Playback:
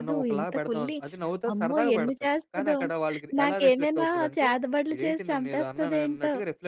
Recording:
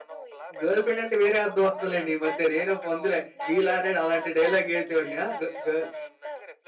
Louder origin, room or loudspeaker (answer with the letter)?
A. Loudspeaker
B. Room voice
B